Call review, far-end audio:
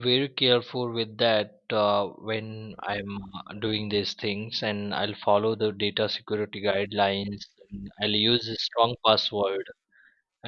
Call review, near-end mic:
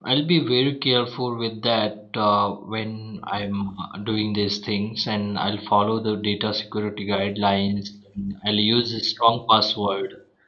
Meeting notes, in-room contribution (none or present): none